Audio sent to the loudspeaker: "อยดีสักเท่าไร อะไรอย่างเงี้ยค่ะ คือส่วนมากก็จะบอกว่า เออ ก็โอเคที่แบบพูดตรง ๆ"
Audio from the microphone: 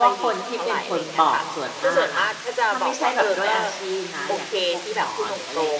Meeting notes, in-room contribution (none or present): present